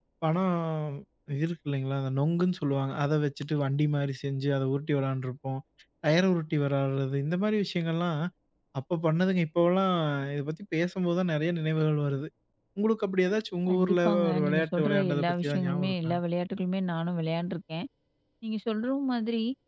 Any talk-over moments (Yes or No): Yes